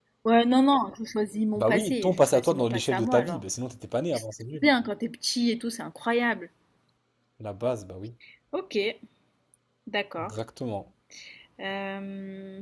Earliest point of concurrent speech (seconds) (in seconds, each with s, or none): 1.6 s